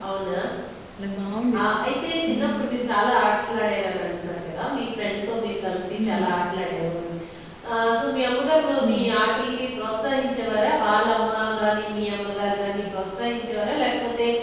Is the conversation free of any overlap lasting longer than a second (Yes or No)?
Yes